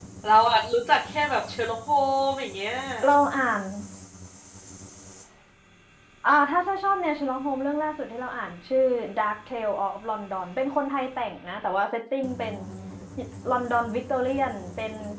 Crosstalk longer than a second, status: none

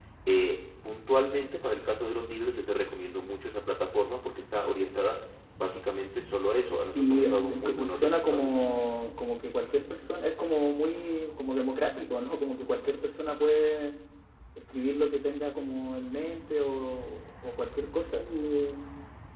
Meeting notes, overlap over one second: present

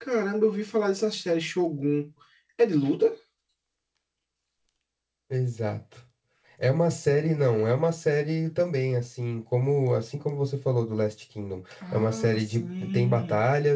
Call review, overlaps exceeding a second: present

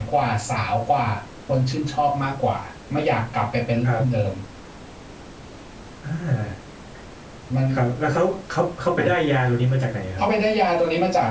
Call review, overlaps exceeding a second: none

